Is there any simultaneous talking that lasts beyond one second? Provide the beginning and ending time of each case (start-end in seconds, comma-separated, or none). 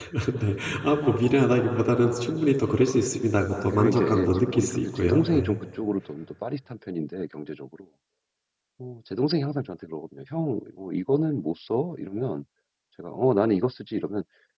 3.7-5.6